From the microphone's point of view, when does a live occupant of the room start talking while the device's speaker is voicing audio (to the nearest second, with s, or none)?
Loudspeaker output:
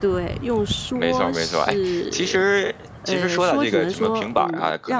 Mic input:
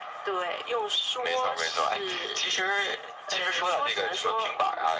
none